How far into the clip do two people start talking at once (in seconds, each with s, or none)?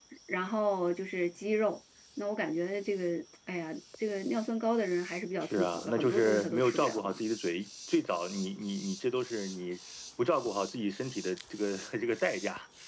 5.4 s